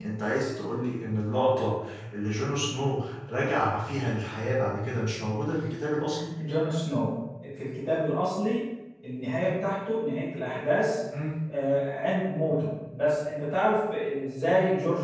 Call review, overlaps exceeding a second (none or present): none